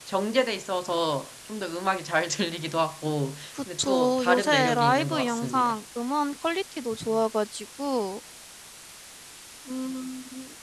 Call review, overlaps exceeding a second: present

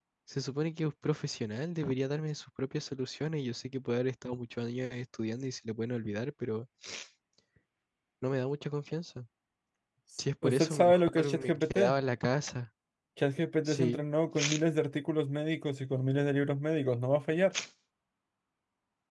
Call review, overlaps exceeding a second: present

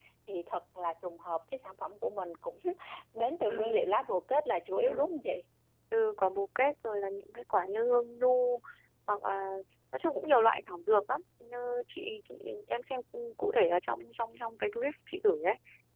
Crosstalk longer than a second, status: none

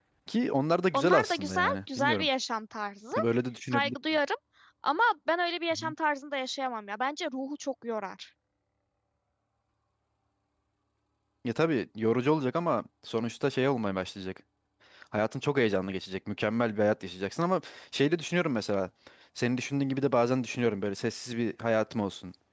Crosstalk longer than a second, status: present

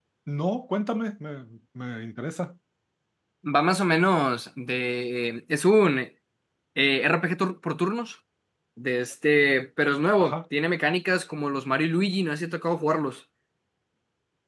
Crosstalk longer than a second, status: none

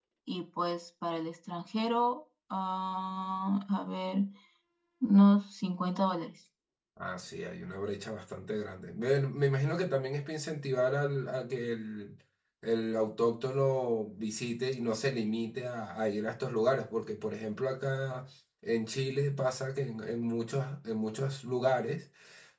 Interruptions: none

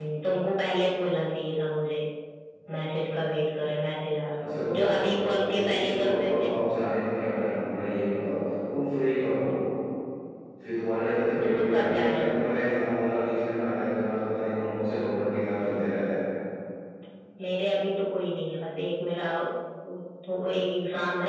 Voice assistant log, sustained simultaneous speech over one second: present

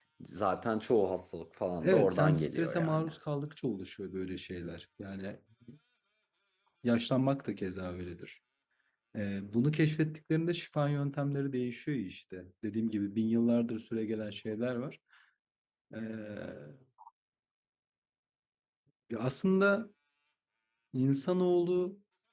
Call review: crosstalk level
present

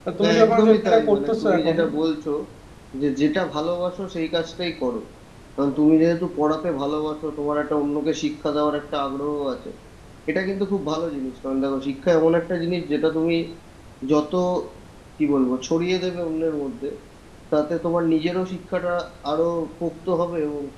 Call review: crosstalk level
present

